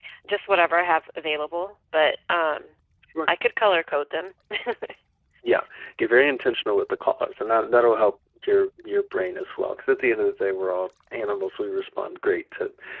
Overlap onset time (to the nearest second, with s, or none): none